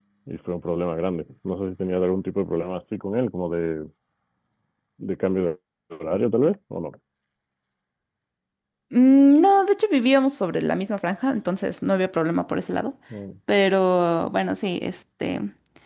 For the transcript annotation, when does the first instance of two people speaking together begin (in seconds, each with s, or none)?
none